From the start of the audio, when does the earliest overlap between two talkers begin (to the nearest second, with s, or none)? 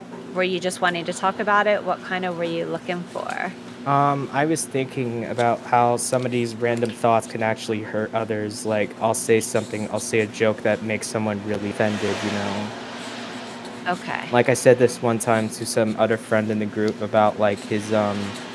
none